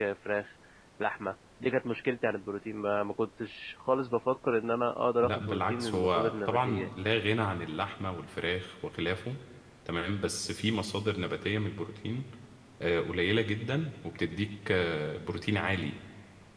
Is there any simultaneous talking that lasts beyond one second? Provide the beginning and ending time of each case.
5.2-7.0

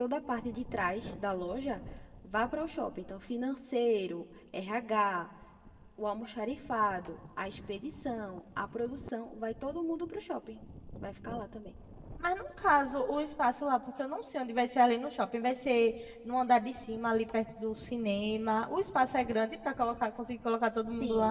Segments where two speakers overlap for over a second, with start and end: none

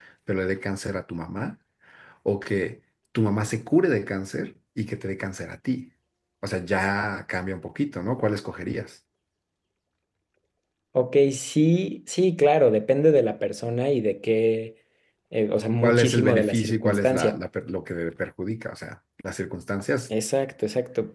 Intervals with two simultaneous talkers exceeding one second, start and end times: 15.8-17.4

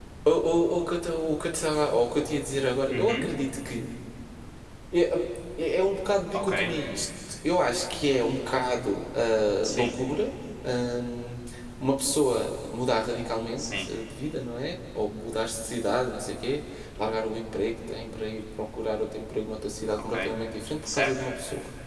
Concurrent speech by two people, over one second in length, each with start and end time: none

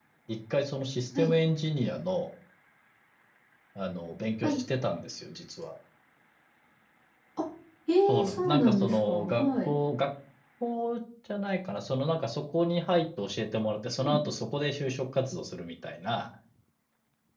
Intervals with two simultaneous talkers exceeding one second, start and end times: 8.1-9.8

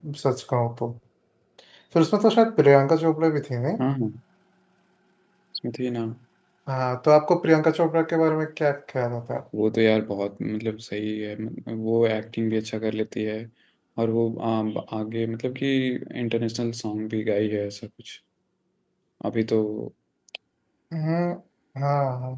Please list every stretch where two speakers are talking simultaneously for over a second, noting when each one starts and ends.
none

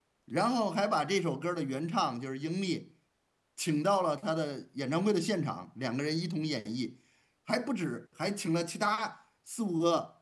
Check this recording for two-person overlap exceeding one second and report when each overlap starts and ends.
none

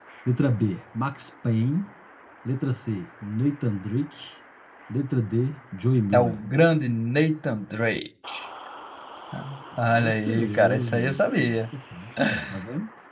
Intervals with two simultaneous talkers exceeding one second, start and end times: 9.9-11.6

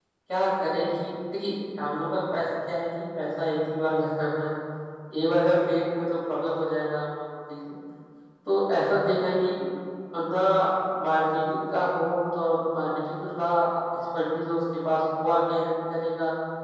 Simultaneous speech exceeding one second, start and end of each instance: none

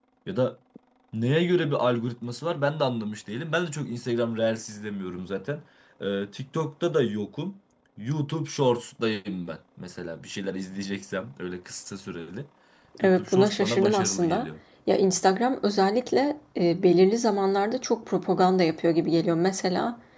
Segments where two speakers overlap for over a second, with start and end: 13.0-14.5

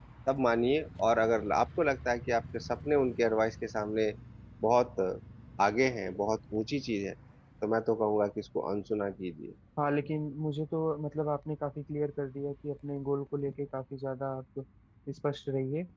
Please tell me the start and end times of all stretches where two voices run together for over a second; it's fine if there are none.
none

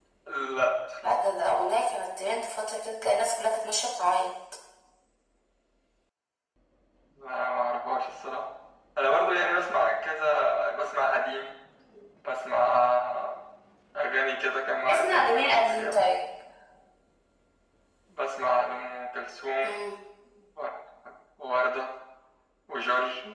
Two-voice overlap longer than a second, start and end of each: 14.9-16.1

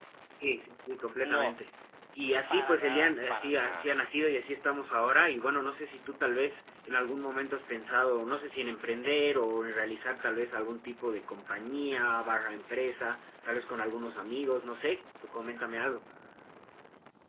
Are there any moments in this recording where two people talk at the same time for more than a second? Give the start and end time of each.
2.5-3.9

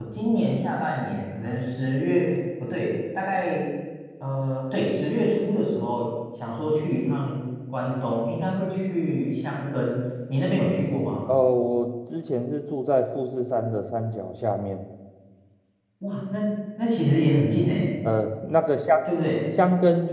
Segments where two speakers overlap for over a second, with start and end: none

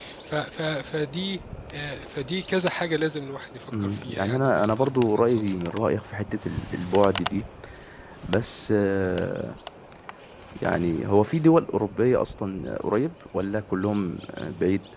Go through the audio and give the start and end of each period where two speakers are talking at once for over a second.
3.7-5.4

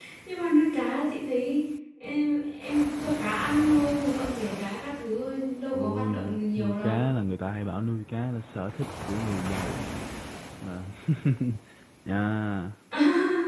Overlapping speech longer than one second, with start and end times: 5.7-7.1

